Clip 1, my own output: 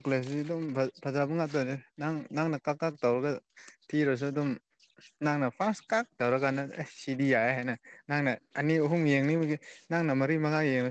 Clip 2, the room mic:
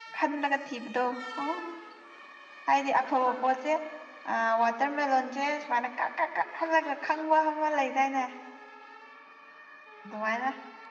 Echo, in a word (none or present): none